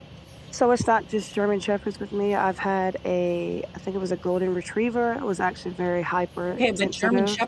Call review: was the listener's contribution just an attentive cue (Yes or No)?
No